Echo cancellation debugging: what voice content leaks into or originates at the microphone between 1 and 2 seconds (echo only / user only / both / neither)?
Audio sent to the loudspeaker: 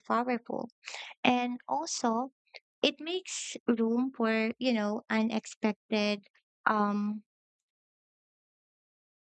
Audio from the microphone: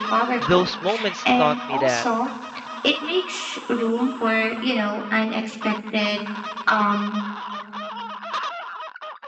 both